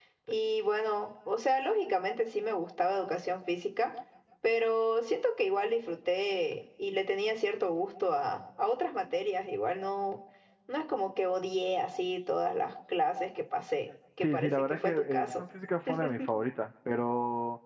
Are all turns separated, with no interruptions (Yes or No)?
No